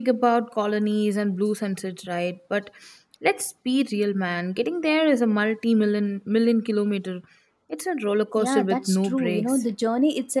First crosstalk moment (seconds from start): 8.4 s

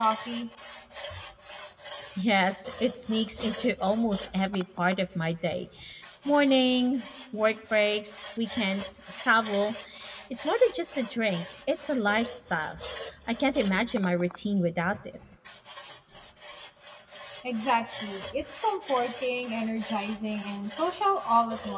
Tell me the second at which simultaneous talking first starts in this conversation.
none

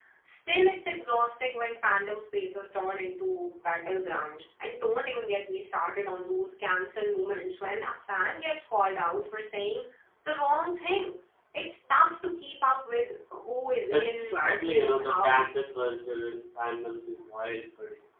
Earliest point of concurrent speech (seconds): 13.9 s

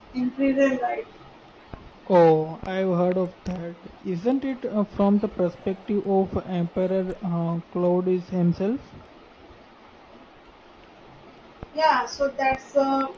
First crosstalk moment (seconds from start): none

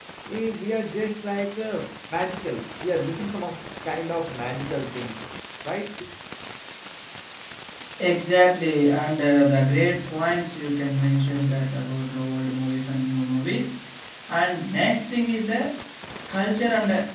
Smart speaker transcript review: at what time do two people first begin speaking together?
none

